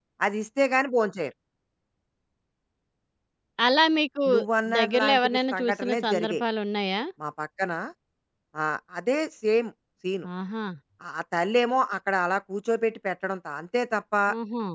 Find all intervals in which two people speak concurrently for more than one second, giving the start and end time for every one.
4.8-6.4

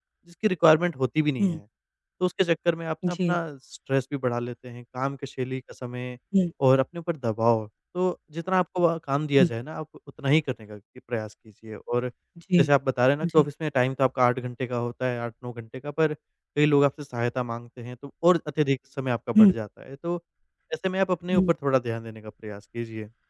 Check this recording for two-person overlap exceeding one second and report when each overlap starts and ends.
none

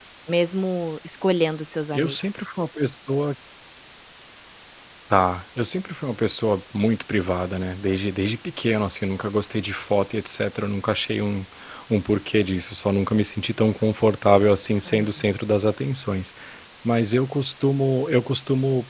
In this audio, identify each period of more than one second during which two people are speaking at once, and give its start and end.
none

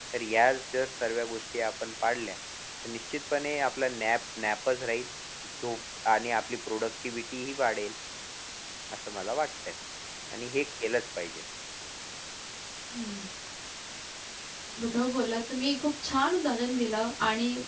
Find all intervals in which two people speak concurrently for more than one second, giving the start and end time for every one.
none

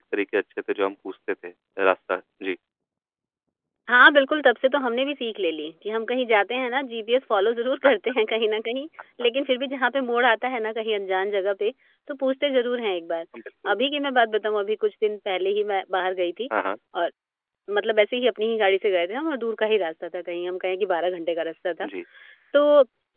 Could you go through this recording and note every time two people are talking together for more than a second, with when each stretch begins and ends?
none

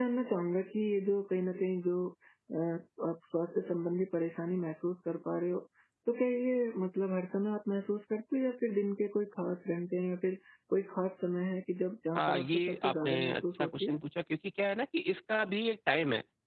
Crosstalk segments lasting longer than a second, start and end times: 12.2-14.0

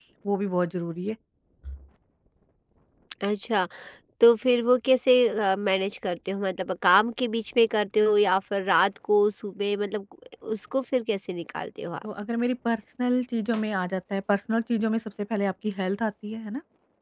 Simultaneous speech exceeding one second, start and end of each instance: none

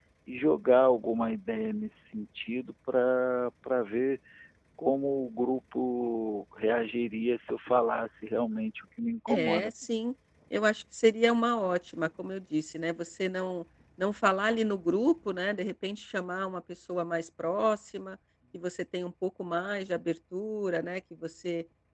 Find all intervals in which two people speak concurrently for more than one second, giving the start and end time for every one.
none

